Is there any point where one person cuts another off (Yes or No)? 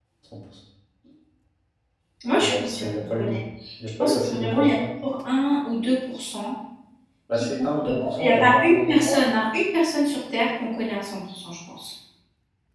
Yes